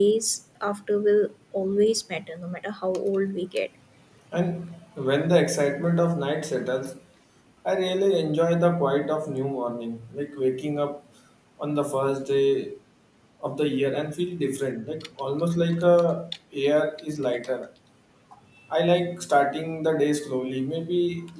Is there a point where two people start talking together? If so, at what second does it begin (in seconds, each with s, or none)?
none